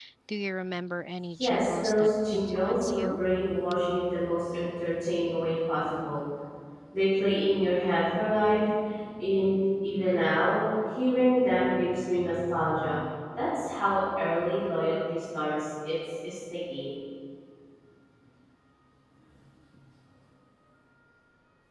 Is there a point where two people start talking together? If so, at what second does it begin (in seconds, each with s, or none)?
1.4 s